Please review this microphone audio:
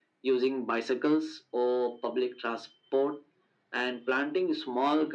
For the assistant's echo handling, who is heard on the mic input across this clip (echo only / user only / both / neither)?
echo only